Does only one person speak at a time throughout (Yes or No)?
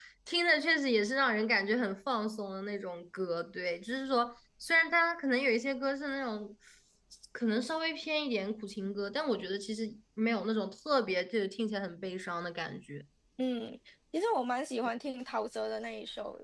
Yes